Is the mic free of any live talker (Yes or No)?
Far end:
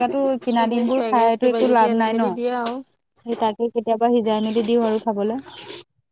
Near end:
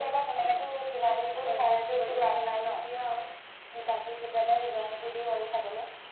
Yes